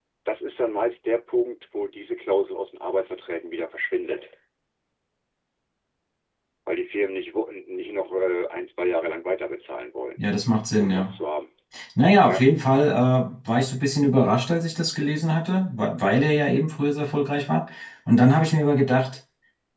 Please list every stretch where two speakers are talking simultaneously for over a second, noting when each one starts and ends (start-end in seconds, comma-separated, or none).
none